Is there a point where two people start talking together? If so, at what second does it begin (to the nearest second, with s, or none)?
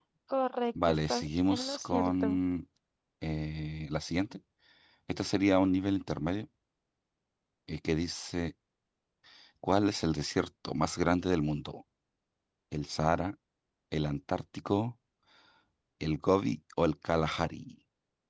1 s